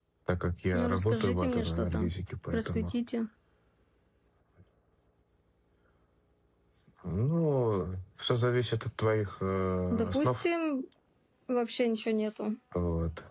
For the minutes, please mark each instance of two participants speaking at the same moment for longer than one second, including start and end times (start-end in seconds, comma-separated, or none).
0.7-2.1